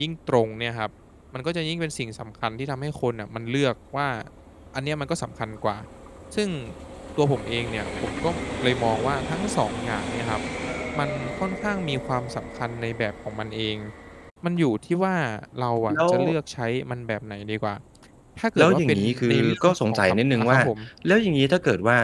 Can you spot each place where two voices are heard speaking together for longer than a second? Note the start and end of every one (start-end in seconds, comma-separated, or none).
18.6-20.6